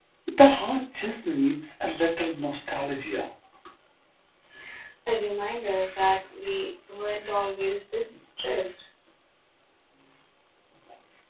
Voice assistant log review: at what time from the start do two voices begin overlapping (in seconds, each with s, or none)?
none